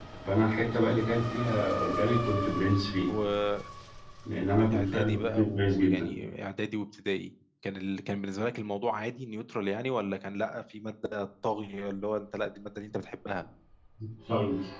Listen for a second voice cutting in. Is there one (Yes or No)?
Yes